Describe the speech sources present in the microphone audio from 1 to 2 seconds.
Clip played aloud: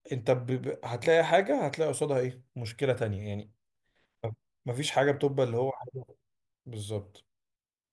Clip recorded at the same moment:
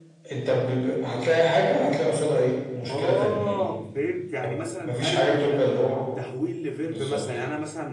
echo only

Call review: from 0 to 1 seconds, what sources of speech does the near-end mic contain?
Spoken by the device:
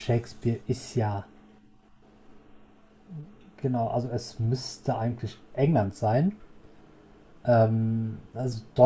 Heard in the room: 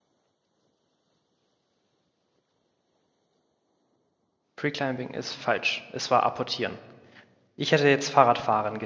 neither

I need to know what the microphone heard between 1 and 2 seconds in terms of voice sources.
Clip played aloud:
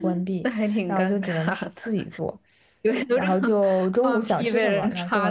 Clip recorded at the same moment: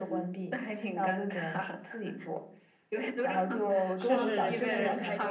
echo only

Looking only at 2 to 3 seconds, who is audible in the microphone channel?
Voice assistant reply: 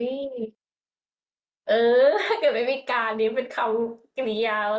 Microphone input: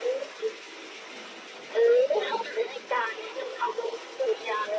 echo only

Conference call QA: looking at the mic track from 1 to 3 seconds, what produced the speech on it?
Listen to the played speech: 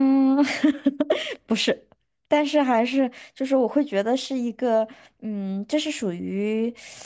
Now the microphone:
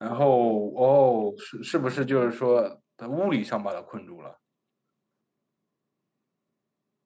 user only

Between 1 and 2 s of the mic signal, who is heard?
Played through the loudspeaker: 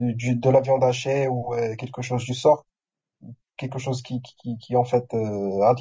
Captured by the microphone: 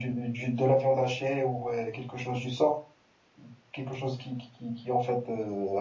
echo only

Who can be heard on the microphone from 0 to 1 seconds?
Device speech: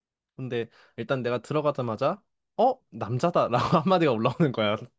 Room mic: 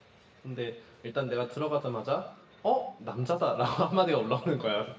echo only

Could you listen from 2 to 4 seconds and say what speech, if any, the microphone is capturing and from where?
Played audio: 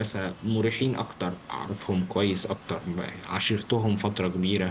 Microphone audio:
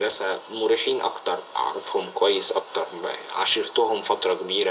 echo only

